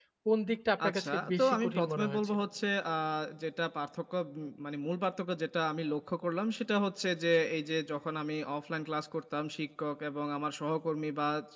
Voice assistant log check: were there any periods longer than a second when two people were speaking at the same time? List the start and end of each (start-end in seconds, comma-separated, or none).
0.9-2.4